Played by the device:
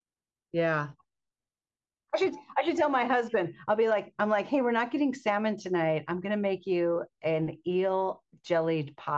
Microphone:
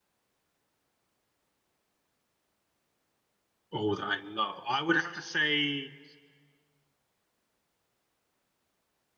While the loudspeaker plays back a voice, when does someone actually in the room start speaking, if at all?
3.7 s

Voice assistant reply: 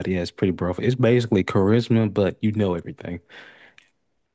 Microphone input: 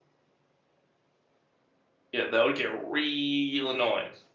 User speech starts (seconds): 2.1 s

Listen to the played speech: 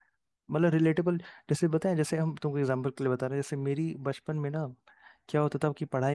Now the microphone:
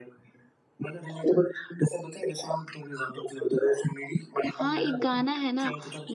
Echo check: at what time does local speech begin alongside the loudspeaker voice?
4.5 s

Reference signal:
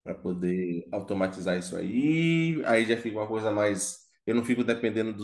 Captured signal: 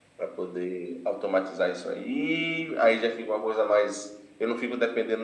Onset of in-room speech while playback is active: none

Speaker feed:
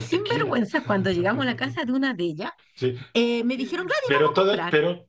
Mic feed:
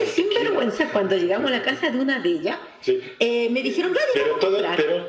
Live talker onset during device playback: none

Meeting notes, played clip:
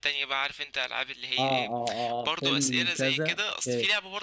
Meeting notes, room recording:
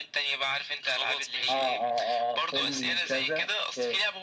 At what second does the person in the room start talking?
0.8 s

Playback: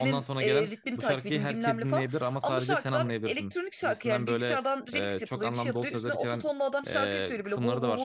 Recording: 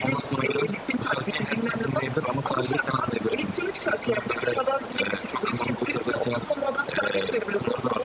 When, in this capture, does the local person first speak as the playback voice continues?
none

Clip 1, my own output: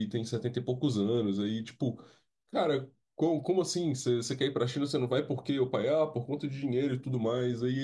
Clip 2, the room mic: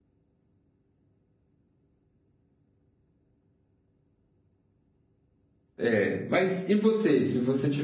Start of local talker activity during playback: 5.8 s

